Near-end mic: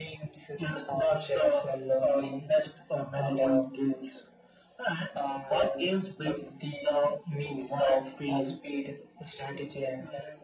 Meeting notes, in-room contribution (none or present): none